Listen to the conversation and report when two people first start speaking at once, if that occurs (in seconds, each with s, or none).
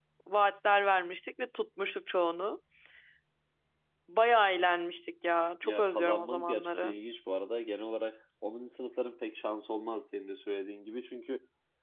5.6 s